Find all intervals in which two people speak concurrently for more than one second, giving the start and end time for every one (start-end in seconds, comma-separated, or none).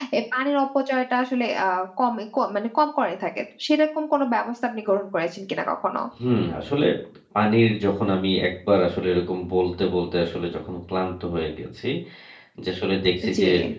none